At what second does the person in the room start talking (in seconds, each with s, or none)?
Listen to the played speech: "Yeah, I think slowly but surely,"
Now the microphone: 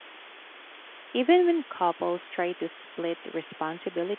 1.1 s